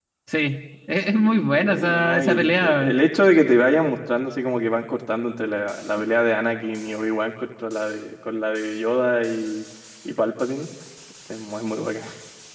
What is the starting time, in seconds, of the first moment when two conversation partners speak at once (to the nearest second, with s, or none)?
1 s